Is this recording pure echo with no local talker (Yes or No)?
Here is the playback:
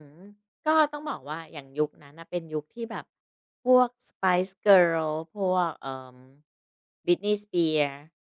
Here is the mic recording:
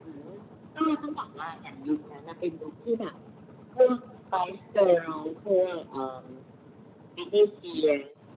Yes